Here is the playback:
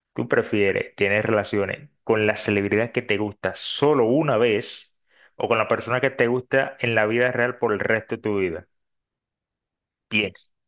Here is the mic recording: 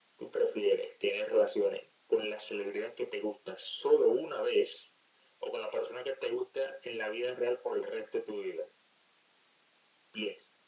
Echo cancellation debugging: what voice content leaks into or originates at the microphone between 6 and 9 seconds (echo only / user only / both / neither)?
echo only